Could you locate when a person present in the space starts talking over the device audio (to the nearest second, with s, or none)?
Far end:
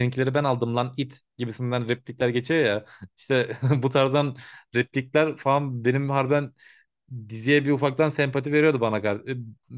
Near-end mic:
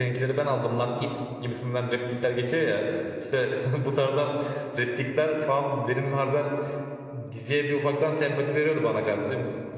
none